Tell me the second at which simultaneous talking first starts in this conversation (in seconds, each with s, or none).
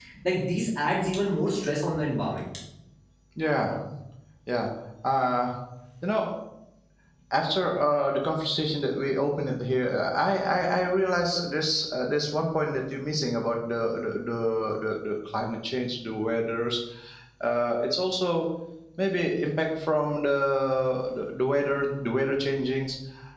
none